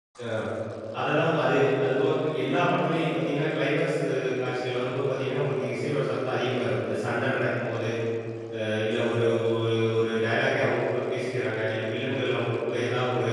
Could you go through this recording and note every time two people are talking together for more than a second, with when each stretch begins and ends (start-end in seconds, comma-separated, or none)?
none